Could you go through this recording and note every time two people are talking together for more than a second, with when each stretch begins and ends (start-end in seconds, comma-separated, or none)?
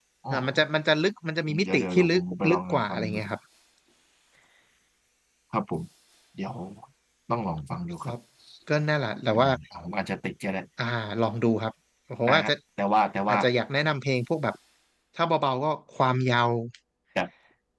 1.6-3.2